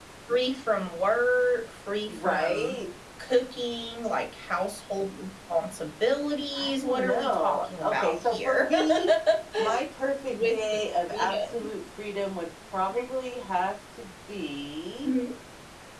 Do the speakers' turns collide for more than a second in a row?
Yes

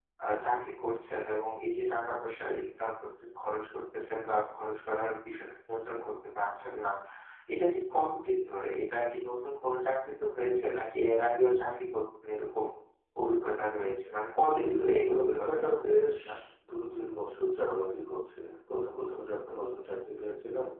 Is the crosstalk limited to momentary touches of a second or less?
No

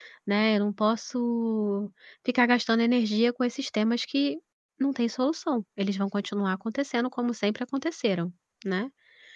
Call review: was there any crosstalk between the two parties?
No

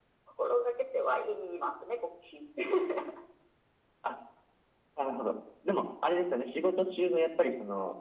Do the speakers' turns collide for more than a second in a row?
No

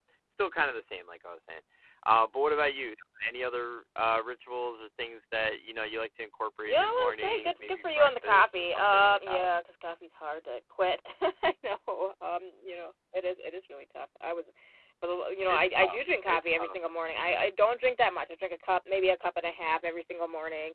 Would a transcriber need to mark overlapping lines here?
Yes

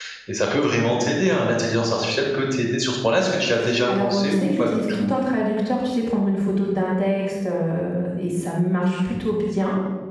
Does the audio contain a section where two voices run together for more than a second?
Yes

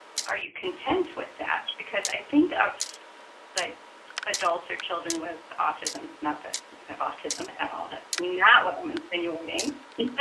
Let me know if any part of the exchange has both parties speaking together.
No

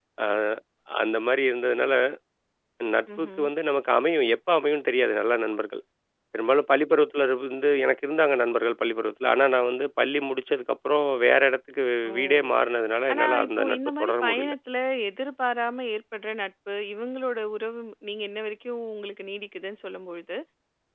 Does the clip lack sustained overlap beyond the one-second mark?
No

